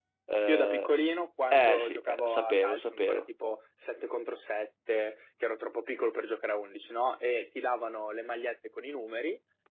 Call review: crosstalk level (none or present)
present